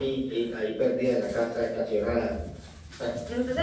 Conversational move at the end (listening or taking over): taking over